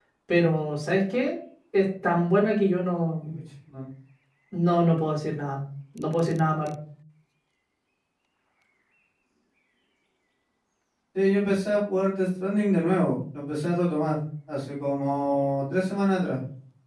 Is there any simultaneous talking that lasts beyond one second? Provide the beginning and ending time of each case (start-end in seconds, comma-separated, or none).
none